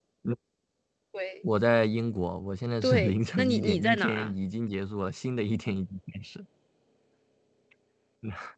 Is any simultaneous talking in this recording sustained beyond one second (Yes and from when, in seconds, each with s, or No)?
Yes, from 2.8 s